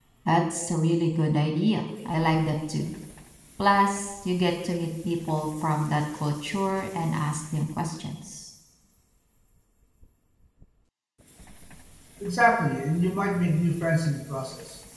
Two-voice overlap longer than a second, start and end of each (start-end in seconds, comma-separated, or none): none